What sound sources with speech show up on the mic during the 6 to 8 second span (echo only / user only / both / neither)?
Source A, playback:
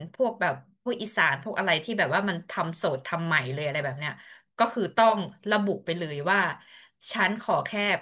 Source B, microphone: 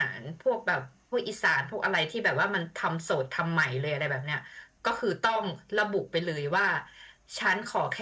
echo only